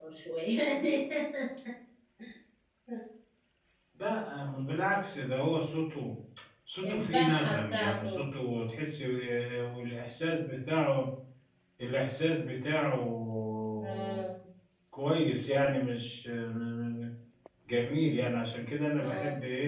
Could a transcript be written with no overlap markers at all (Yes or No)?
No